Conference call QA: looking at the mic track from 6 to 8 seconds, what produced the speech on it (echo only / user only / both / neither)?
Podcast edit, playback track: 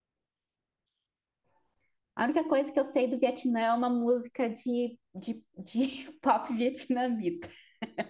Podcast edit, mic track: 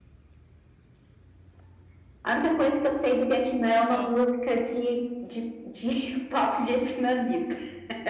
echo only